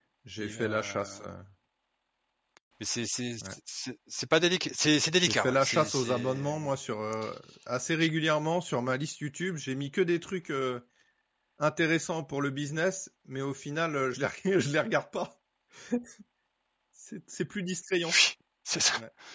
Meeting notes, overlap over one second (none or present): present